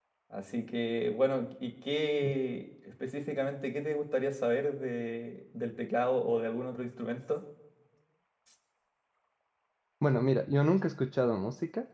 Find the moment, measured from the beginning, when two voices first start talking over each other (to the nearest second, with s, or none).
none